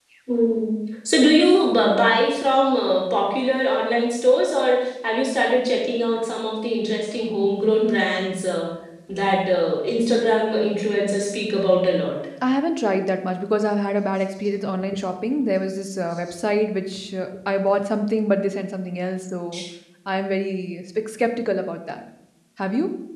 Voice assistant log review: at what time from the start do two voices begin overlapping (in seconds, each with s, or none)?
none